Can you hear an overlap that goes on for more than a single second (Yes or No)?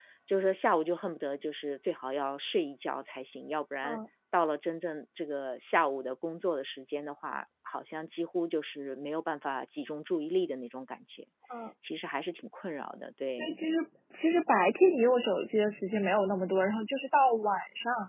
No